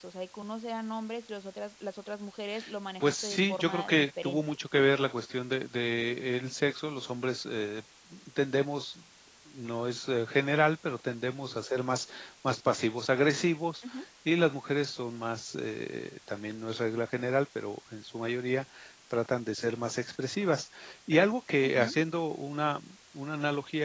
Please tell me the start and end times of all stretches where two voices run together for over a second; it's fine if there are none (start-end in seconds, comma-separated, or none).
3.0-4.4